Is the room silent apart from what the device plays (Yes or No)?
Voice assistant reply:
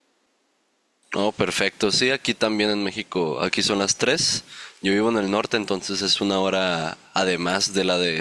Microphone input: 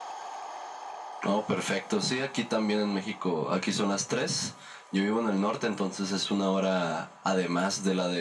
Yes